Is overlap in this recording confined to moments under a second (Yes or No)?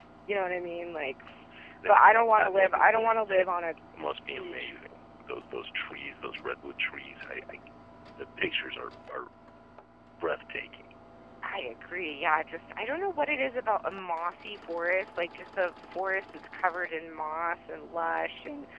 No